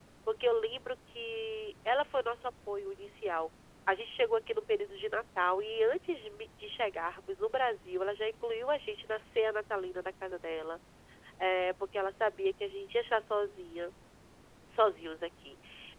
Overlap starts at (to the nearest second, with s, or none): none